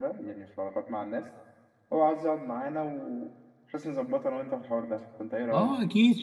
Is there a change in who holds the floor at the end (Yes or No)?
Yes